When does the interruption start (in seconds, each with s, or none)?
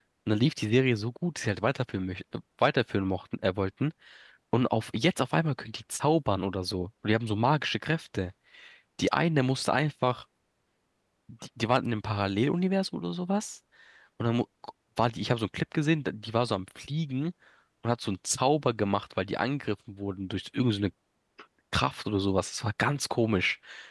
none